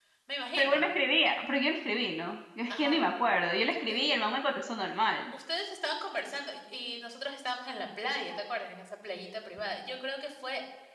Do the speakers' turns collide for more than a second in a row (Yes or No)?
No